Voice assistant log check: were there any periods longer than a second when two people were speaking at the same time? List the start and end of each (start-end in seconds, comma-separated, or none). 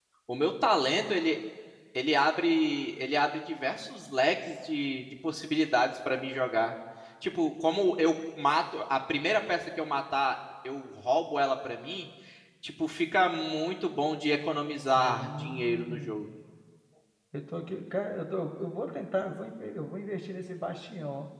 15.0-16.2